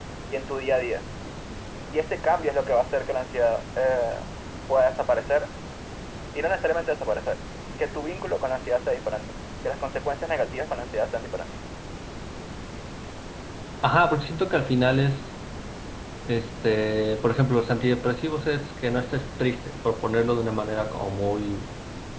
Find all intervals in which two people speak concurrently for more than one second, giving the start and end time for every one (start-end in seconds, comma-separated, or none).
none